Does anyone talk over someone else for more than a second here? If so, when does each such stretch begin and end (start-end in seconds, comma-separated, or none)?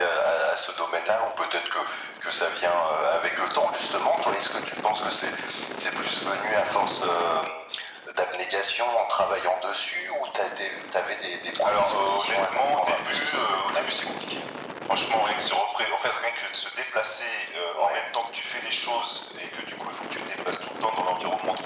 11.6-13.8